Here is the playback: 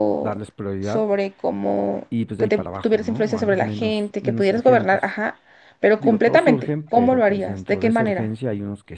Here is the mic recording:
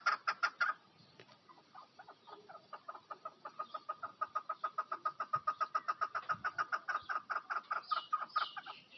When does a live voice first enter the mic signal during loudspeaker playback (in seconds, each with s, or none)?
none